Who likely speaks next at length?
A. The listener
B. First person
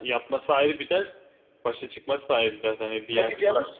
A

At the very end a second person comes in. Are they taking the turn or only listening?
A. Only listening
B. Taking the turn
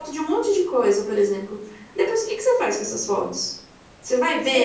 B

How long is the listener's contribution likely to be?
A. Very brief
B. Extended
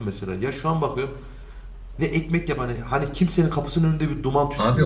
B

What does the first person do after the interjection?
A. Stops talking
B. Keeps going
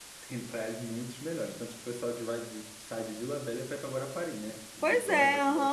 A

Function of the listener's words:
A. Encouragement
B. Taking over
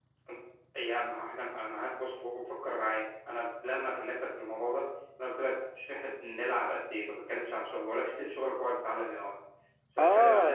B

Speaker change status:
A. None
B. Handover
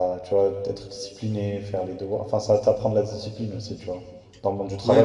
B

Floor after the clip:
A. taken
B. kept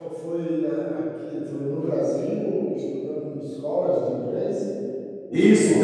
A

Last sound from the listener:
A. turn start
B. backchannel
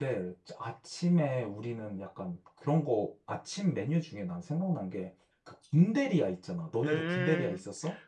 A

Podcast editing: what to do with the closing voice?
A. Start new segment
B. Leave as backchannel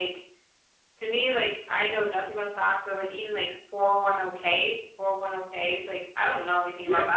A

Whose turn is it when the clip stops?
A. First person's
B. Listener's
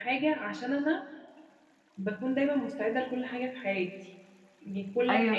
A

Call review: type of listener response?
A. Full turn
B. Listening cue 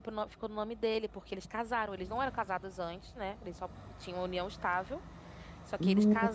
B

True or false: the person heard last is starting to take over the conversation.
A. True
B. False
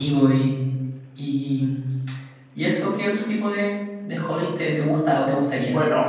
A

